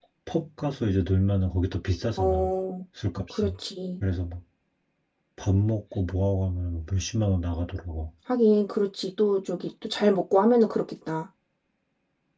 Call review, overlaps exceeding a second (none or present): none